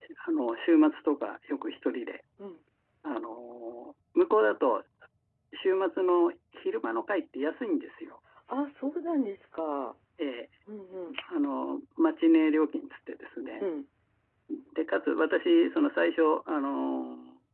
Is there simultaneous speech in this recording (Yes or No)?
No